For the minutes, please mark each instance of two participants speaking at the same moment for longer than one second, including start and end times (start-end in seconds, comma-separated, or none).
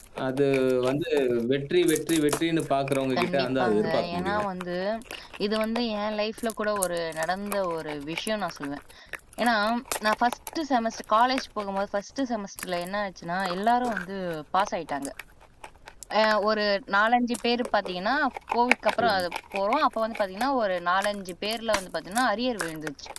3.2-4.5